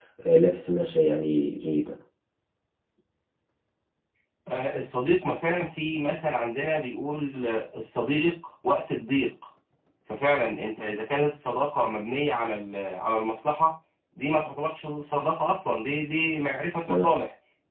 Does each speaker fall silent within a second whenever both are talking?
Yes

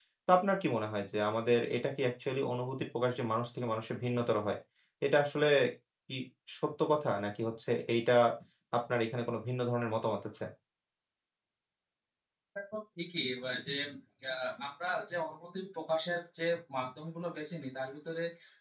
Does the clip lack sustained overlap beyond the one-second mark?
Yes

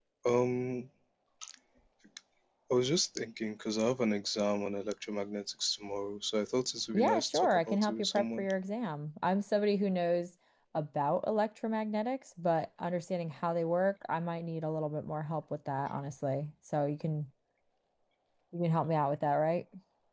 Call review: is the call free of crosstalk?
No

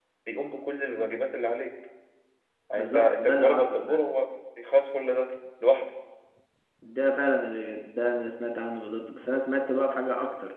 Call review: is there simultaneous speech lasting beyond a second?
Yes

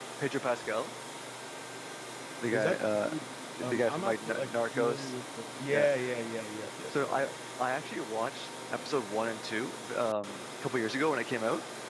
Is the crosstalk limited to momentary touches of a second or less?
No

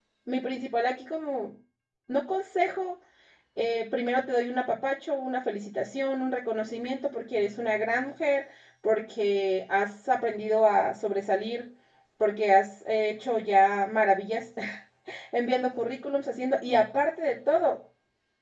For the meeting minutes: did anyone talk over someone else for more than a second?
No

